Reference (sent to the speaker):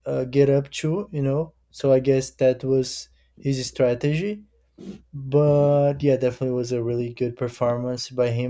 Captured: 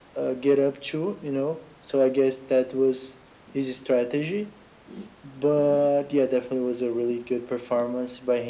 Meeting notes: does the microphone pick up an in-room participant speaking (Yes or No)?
No